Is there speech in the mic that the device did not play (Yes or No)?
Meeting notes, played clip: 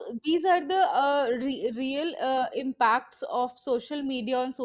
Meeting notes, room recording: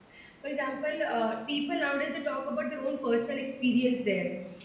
Yes